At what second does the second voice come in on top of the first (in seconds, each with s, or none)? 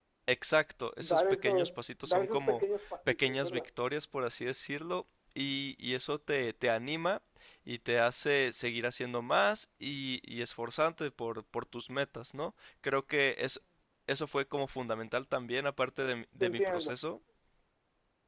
1.0 s